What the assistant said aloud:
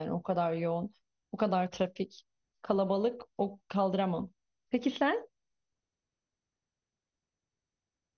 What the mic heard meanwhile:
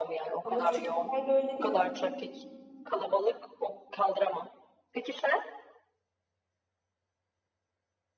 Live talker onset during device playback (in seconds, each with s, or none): 0.4 s